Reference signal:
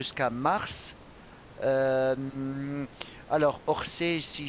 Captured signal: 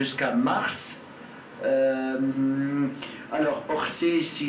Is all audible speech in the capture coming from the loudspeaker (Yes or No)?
Yes